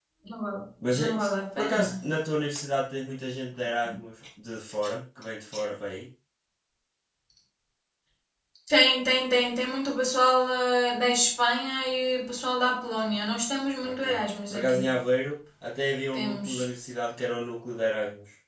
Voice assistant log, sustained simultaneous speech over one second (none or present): none